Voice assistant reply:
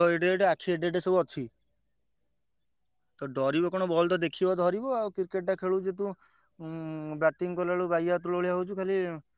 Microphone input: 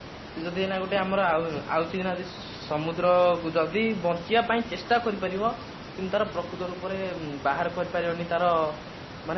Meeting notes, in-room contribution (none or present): present